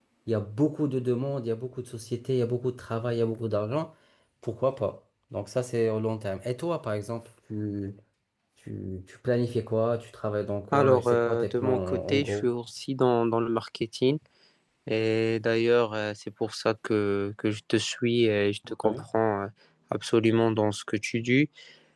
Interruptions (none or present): present